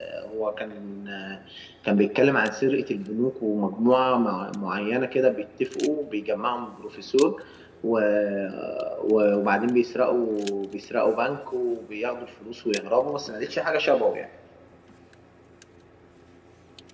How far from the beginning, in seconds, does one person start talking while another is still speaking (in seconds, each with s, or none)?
none